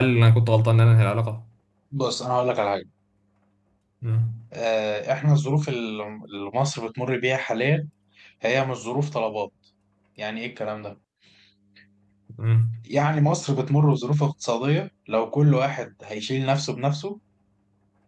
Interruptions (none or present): none